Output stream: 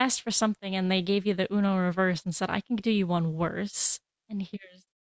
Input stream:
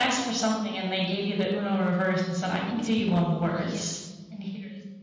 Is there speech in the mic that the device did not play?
Yes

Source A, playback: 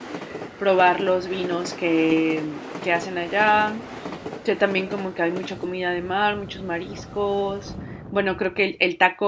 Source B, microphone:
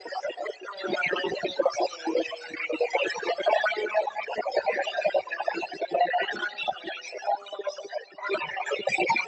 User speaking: No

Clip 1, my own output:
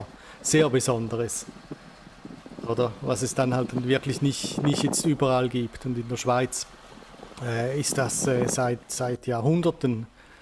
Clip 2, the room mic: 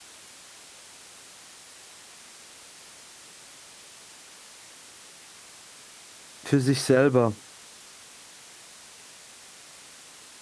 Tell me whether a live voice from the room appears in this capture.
Yes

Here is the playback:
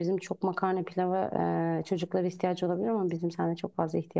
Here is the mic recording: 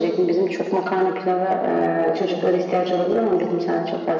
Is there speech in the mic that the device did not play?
No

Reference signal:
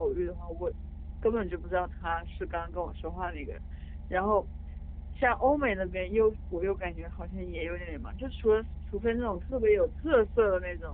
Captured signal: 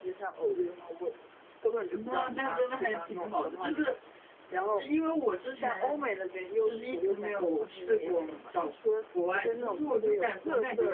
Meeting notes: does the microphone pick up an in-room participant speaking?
Yes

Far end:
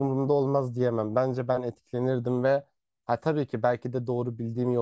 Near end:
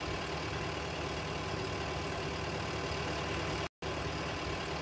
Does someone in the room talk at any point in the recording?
No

